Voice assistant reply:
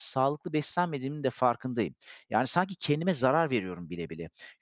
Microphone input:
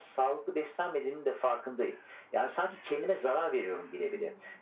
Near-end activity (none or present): present